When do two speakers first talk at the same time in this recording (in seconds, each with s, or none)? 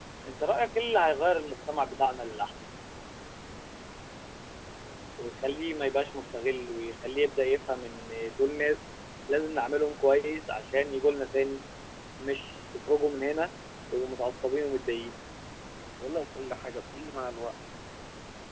none